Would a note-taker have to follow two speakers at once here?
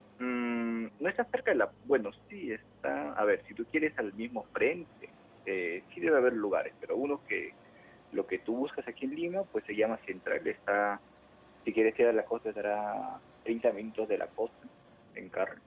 No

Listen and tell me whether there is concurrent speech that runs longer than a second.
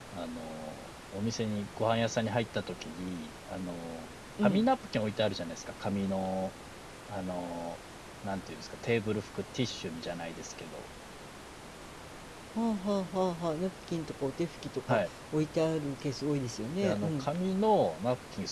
No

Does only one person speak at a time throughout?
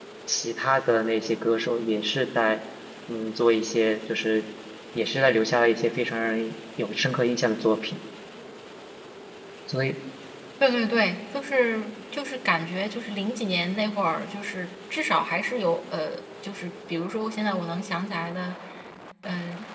Yes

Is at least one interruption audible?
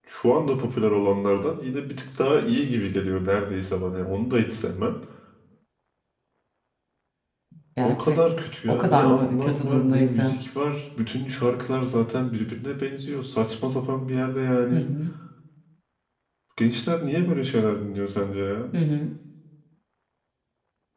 Yes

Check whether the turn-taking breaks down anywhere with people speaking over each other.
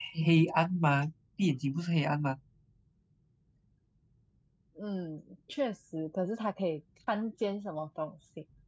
No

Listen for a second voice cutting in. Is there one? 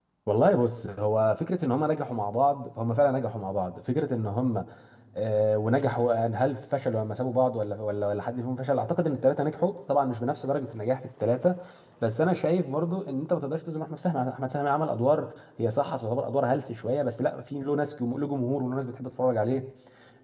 No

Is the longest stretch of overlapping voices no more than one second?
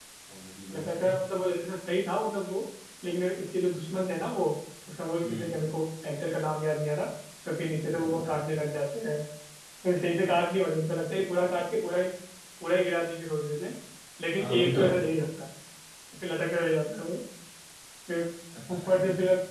Yes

